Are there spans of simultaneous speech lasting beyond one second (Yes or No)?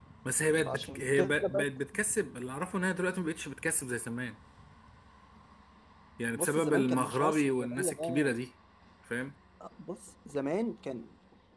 Yes